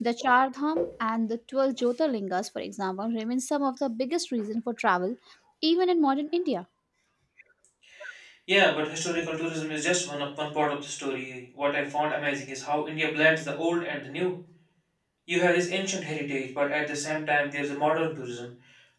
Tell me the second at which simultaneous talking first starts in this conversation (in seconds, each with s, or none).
none